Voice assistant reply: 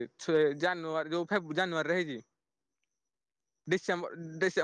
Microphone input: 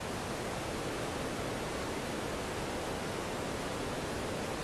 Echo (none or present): none